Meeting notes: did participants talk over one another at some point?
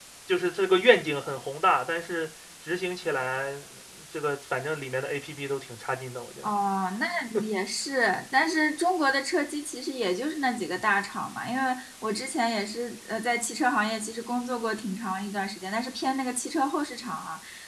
No

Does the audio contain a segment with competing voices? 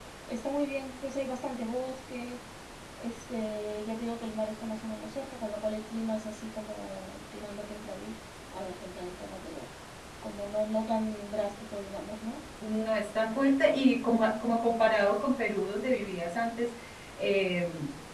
No

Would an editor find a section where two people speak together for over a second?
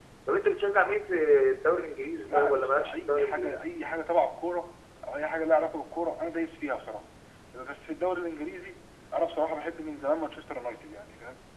Yes, from 2.2 s

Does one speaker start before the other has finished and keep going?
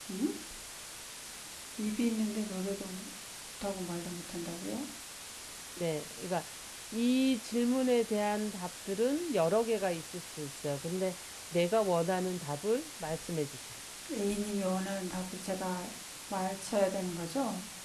No

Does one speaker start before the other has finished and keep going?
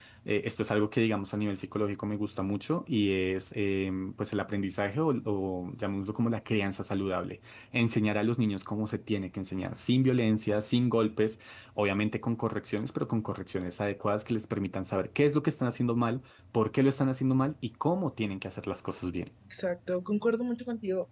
No

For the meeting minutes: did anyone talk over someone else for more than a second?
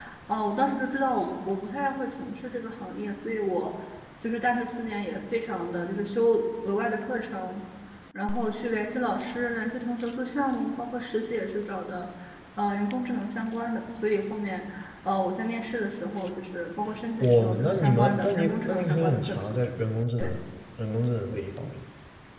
Yes, from 17.1 s

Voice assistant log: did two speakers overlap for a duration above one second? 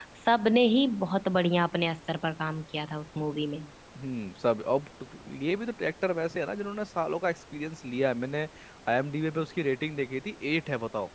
No

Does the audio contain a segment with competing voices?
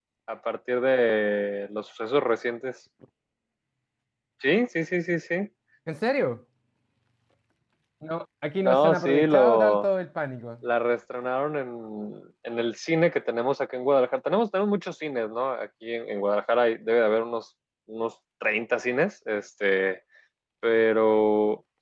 Yes, from 8.6 s

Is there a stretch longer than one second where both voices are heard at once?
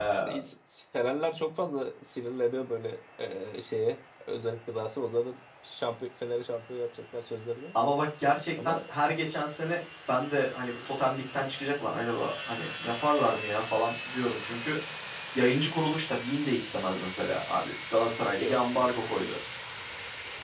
No

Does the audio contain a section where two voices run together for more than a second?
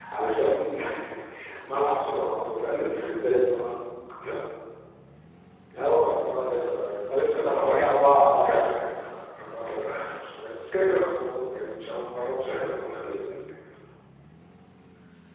Yes, from 7.1 s

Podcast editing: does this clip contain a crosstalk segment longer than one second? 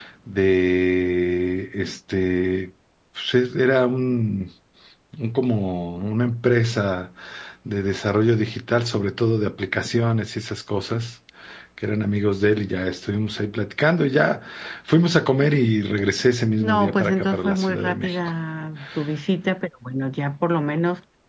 Yes, from 16.6 s

